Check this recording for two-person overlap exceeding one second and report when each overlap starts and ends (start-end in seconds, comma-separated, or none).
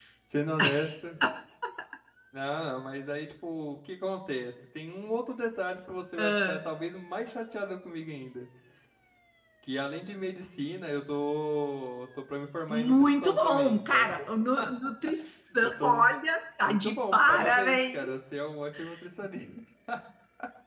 12.7-14.1, 16.6-18.2